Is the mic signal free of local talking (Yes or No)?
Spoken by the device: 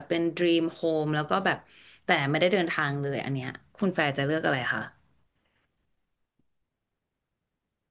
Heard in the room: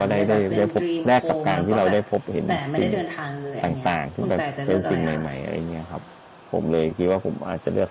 No